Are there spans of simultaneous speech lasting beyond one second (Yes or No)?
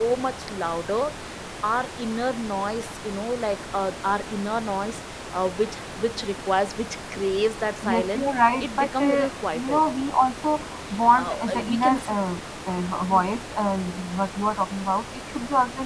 Yes